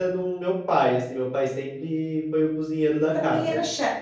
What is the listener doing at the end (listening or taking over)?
taking over